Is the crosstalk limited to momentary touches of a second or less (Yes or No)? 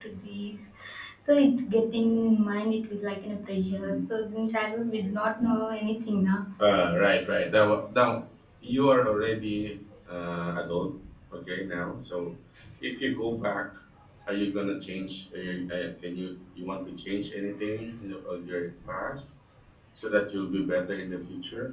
Yes